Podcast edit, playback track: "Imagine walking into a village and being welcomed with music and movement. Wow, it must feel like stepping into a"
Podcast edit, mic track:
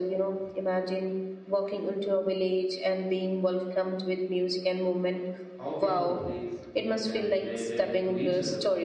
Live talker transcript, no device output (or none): how people live think and related to each other